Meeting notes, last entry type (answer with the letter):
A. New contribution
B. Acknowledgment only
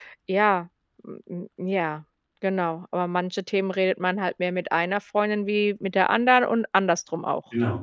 A